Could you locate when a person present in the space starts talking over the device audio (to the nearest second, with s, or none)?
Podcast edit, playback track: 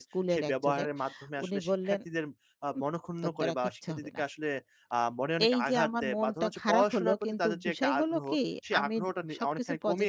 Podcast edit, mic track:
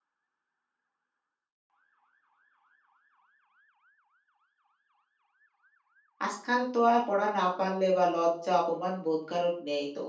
6 s